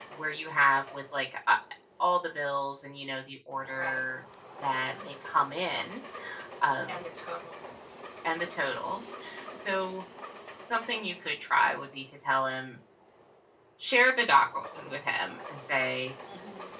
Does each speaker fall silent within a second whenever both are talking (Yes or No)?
Yes